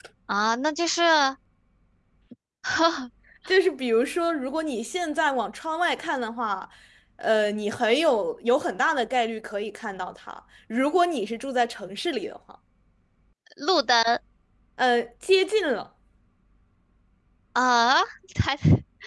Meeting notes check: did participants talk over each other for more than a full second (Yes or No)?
No